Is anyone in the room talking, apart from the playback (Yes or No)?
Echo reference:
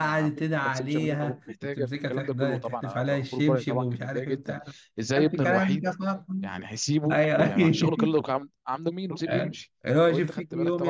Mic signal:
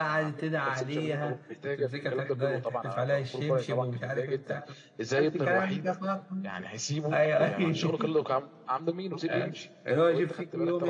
No